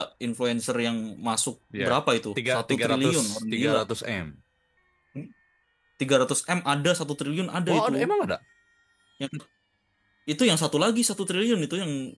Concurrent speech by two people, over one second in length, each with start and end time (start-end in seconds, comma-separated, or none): 2.5-3.8